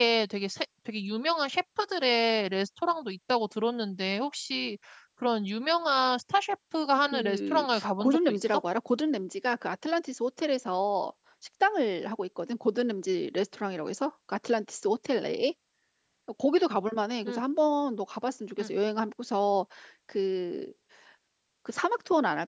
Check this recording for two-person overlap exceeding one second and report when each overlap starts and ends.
7.1-8.6

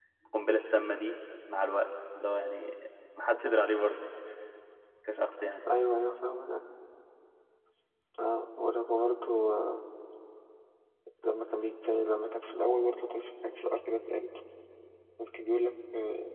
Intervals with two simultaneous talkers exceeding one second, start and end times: none

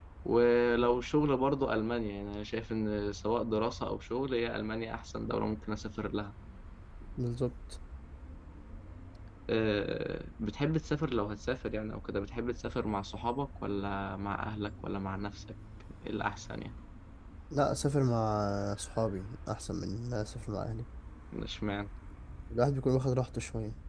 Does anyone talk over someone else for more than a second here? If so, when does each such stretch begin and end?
none

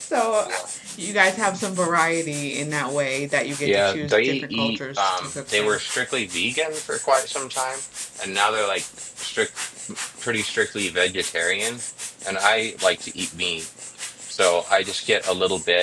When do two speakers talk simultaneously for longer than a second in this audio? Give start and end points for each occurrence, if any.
3.6-5.8

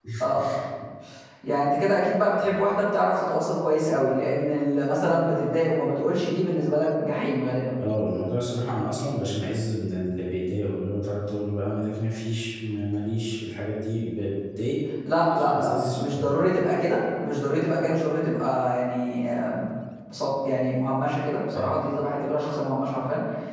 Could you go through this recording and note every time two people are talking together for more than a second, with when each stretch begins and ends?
15.2-16.6

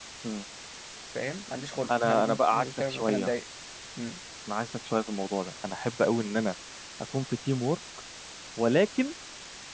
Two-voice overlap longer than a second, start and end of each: 1.9-3.3

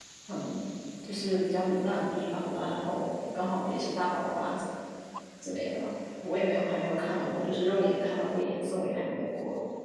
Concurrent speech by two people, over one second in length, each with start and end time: none

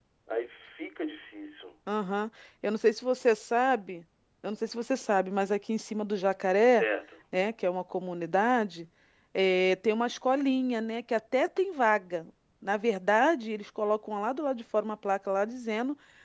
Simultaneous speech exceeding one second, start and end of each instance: none

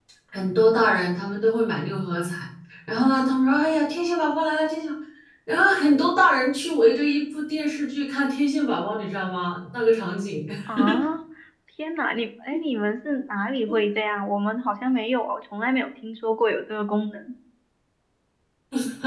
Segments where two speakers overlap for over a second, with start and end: none

